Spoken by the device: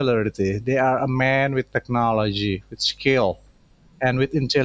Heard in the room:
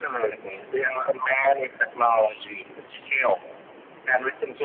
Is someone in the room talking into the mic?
No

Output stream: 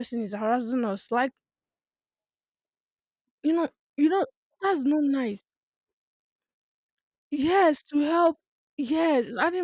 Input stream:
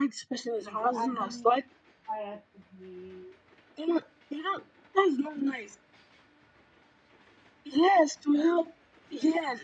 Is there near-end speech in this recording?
Yes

